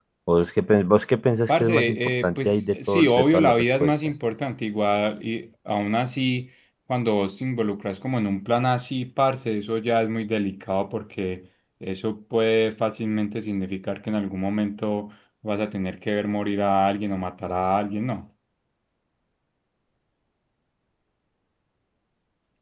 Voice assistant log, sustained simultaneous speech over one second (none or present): present